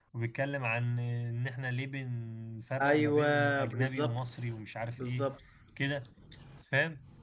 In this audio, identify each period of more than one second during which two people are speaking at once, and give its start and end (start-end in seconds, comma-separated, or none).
2.8-4.3